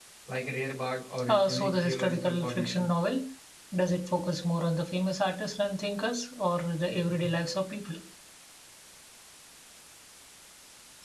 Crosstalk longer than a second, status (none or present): present